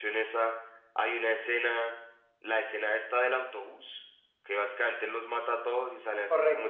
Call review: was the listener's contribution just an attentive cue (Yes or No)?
Yes